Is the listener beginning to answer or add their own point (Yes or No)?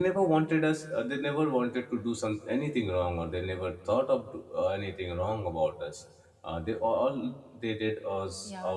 Yes